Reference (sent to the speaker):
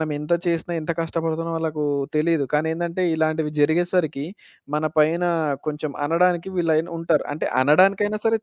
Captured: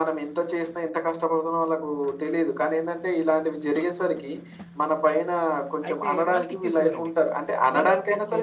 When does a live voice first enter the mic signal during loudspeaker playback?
5.9 s

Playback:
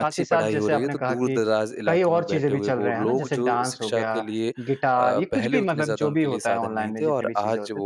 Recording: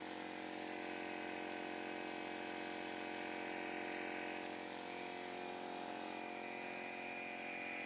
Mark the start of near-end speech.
none

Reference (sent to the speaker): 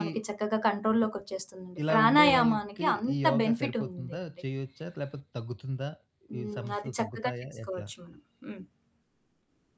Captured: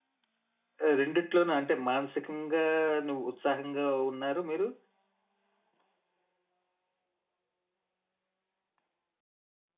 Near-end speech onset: 0.9 s

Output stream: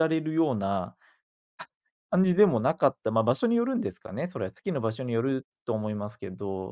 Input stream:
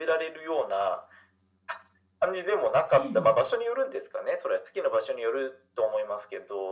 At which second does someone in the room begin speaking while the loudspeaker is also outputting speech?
3.0 s

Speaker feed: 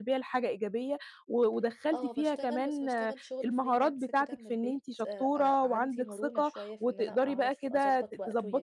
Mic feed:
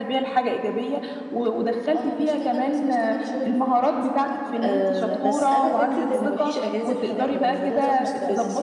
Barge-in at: 4.6 s

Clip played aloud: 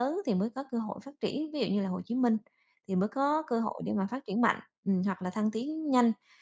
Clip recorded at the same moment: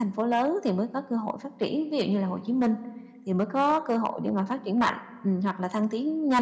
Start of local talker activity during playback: none

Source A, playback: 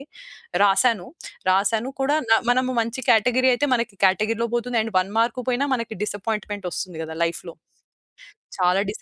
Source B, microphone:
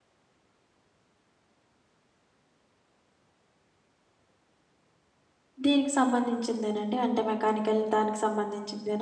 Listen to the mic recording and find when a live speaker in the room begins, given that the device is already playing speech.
5.6 s

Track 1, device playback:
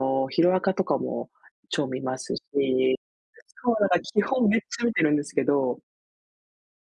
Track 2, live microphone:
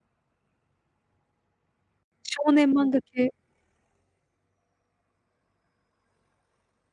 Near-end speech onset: 2.2 s

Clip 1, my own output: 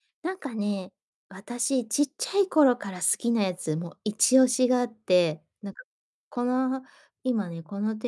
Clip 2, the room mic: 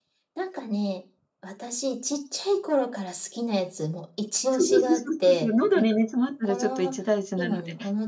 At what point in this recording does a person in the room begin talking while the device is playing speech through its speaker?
4.5 s

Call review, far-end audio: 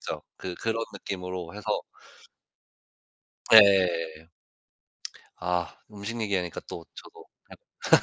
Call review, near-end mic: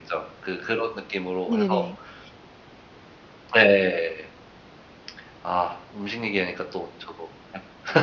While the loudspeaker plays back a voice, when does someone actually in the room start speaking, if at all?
1.5 s

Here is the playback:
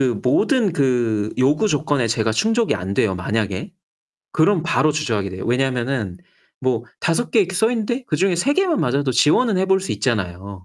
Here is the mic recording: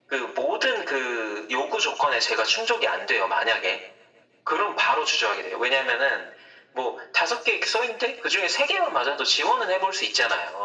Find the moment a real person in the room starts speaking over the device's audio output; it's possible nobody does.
none

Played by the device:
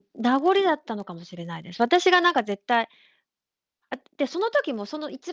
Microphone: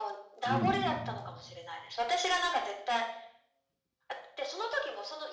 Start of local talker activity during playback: 0.4 s

